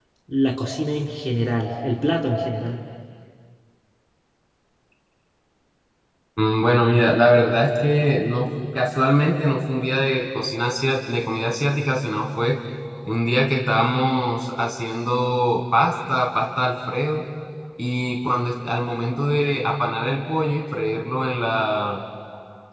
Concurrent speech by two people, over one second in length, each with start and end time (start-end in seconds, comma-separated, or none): none